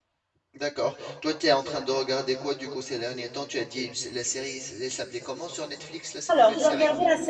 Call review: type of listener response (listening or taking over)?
taking over